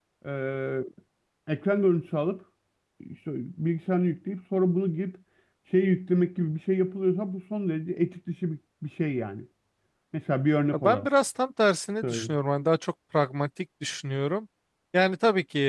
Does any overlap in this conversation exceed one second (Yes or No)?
No